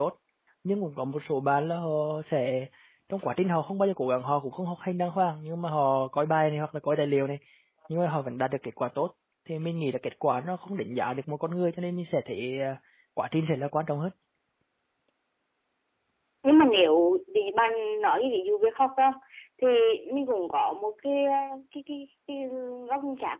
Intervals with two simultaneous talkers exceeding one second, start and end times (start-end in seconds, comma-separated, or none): none